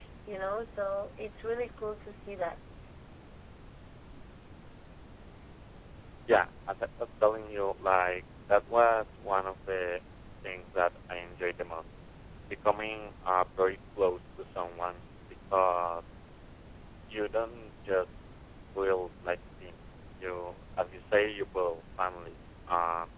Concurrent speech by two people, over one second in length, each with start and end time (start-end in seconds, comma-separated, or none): none